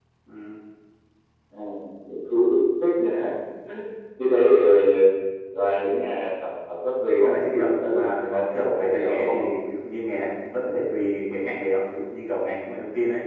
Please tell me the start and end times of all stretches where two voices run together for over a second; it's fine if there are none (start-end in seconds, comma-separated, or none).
7.1-9.4